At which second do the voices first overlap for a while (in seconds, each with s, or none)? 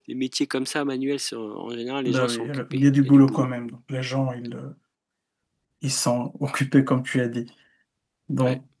2.1 s